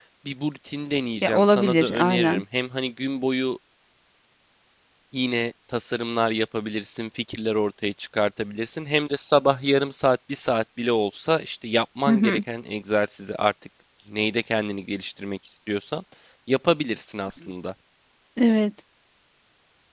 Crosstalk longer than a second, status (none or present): present